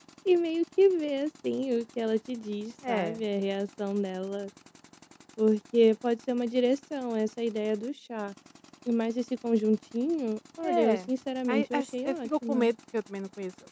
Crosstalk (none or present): present